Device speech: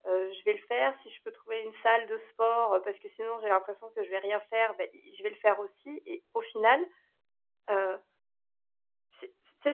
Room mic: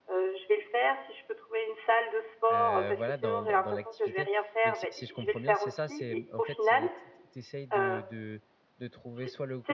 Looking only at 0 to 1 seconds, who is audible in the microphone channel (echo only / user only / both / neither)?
echo only